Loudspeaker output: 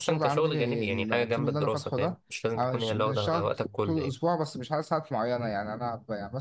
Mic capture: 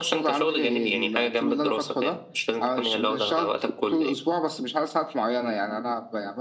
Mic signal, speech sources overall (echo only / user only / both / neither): echo only